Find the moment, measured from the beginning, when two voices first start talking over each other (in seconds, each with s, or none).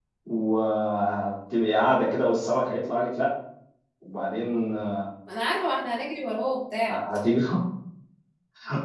none